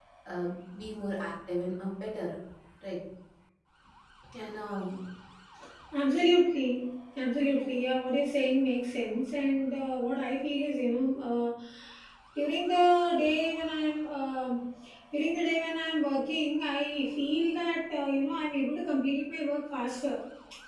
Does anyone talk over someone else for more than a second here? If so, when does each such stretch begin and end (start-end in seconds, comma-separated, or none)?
none